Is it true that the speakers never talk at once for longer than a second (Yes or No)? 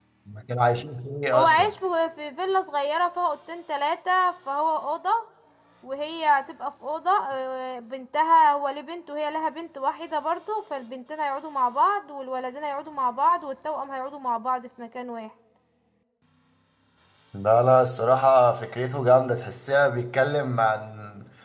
Yes